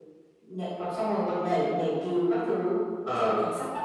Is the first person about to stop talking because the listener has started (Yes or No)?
No